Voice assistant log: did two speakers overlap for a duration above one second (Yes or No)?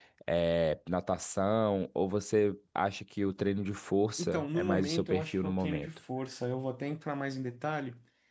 Yes